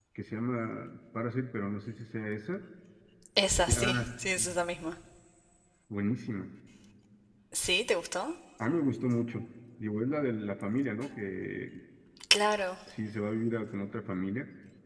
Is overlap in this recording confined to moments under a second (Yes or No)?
Yes